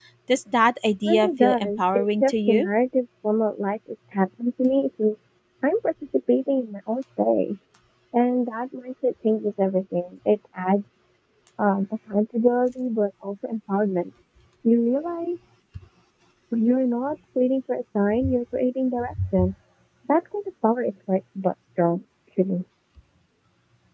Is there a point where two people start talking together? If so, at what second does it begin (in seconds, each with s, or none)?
1.1 s